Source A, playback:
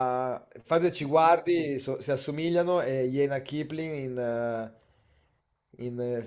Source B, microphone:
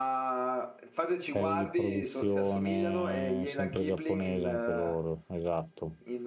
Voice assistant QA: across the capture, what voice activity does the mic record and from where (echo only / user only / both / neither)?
both